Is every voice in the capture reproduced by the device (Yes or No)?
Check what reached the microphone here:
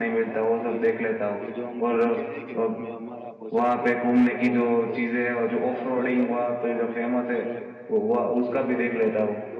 No